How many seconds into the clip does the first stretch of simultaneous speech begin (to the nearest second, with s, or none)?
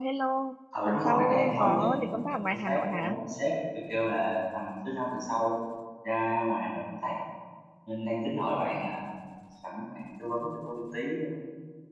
1 s